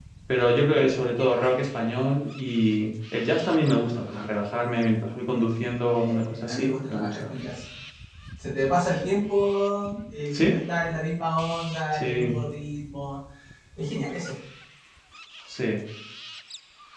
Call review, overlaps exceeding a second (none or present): present